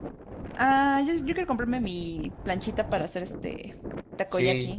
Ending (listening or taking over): taking over